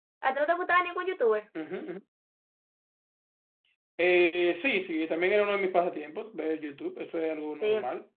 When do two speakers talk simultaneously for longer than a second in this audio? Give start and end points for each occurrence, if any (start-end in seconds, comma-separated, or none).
none